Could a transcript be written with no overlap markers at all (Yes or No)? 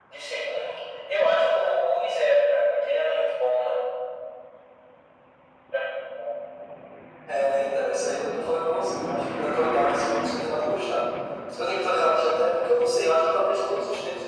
Yes